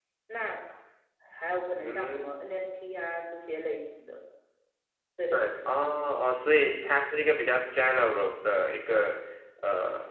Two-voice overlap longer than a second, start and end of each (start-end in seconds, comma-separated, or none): none